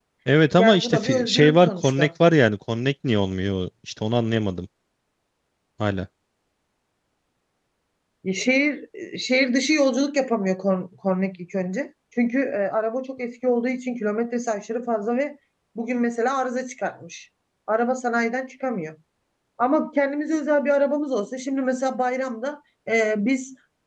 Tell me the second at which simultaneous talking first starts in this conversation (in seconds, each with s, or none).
0.6 s